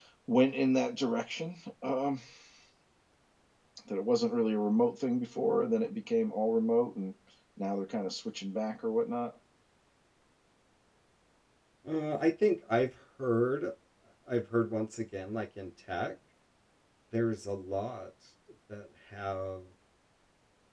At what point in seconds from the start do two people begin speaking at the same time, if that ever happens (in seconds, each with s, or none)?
none